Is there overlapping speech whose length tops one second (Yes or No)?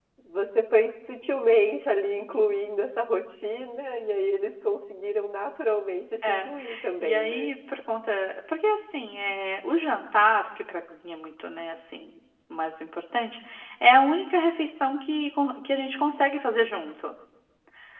No